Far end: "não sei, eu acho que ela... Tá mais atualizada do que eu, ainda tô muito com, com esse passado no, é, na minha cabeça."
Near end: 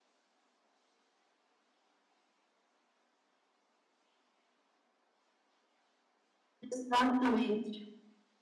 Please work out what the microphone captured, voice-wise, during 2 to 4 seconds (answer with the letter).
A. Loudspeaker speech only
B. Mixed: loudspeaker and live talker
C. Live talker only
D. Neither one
D